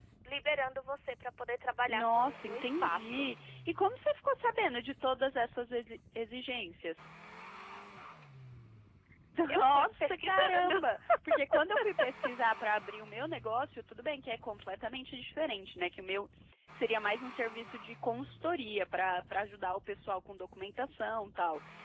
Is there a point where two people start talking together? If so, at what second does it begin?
2 s

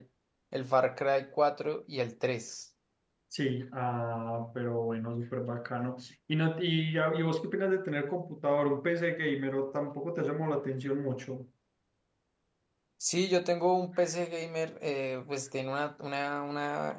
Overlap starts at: none

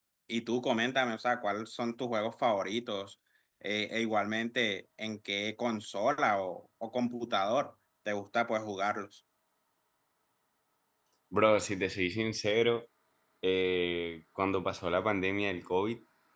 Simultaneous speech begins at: none

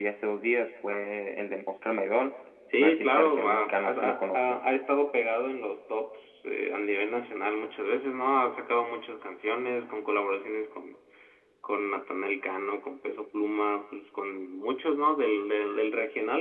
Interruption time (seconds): 3 s

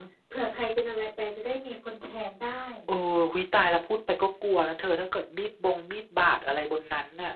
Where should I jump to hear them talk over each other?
none

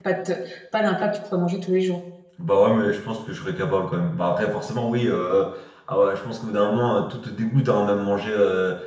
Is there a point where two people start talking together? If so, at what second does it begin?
none

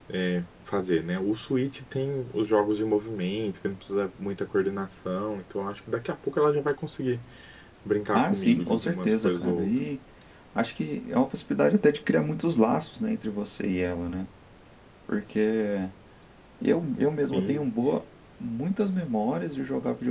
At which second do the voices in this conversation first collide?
8 s

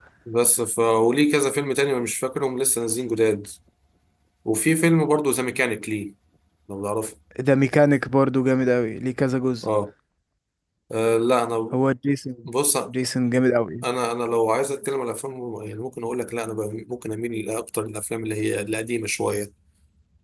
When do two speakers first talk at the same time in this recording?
none

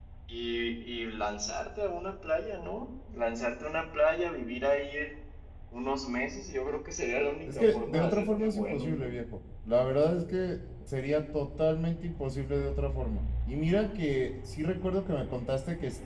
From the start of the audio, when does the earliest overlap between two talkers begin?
8 s

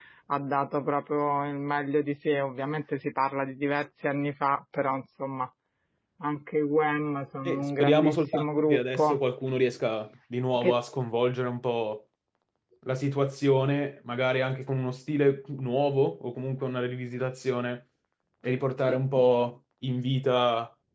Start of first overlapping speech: 7 s

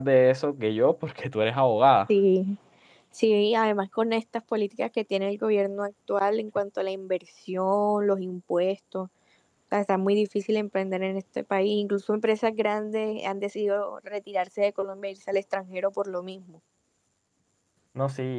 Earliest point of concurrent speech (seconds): none

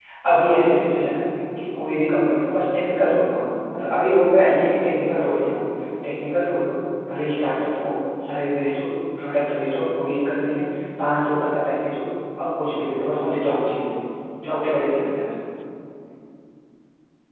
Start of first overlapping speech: none

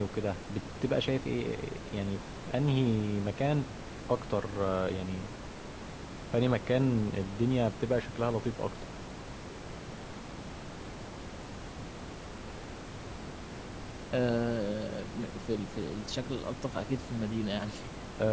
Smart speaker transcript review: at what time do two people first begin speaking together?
none

